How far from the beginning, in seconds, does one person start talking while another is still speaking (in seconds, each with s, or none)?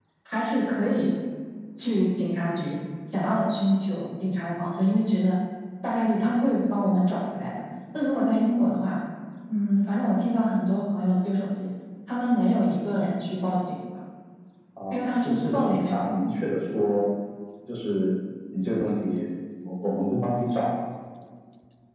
14.9 s